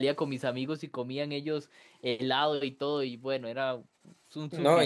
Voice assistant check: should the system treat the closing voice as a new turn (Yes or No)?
Yes